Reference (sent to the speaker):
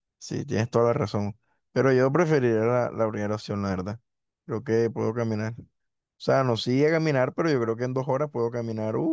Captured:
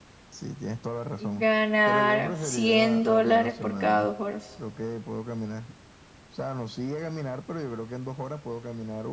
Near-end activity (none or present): present